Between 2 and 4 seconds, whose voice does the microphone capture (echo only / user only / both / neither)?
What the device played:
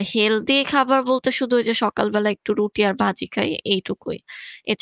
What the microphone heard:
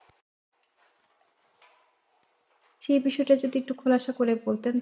user only